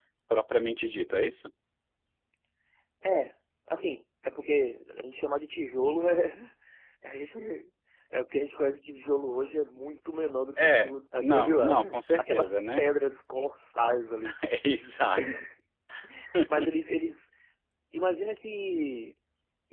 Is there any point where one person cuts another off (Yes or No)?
Yes